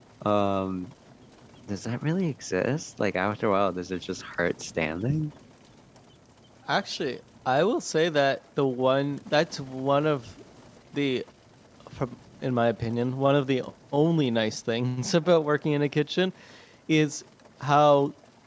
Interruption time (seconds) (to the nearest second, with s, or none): none